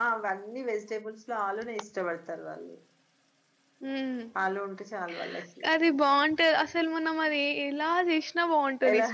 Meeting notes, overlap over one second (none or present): none